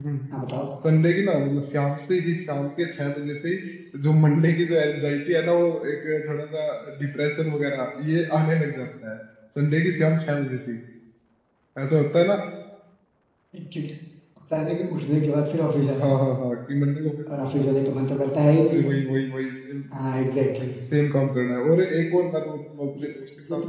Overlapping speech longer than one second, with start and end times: none

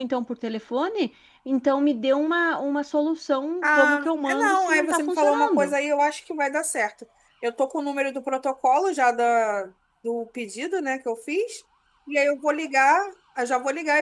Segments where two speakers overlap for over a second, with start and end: 3.6-5.7

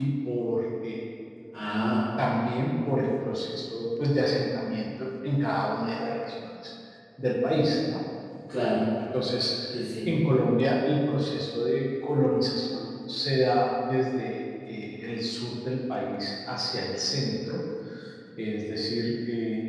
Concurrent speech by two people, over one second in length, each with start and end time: none

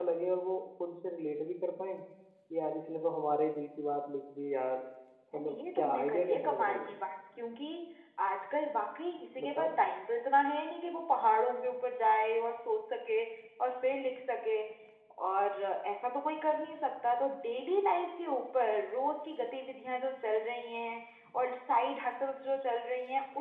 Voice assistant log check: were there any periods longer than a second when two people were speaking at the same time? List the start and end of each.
5.3-6.9

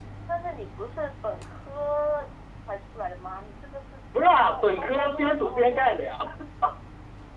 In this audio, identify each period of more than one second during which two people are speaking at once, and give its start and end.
4.5-6.0

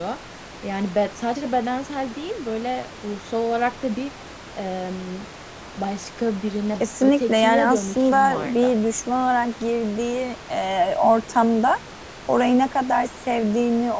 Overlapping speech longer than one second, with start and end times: 6.8-8.7

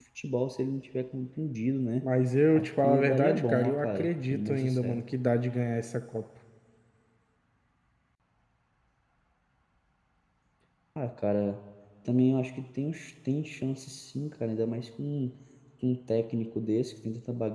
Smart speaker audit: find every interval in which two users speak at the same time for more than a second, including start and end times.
2.5-5.0

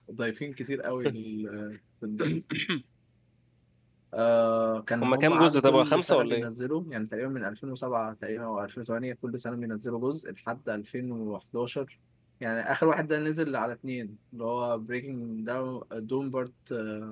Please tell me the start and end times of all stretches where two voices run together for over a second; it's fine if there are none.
5.0-6.5

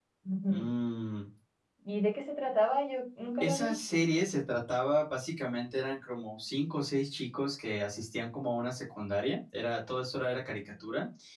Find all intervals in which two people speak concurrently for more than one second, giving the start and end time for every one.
none

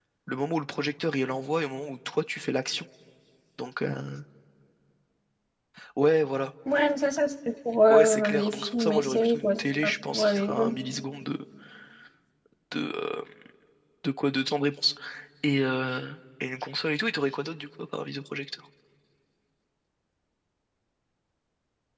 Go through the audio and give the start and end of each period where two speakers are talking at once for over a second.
7.9-10.7

